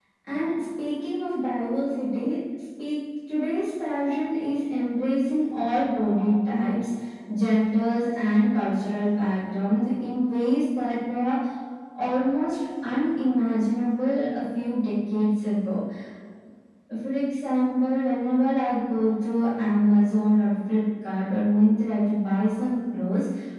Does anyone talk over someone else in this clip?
No

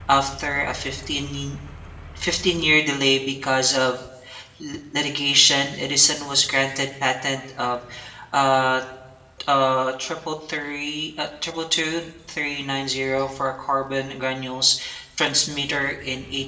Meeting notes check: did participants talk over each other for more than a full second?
No

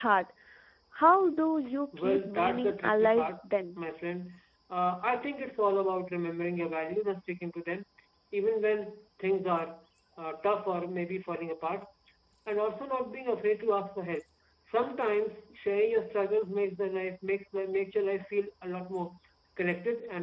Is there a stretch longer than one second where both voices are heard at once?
Yes, from 1.9 s

